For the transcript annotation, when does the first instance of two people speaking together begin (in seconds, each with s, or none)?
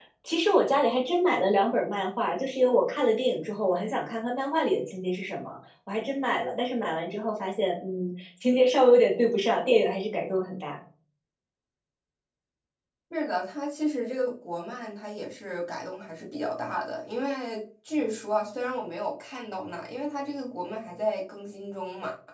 none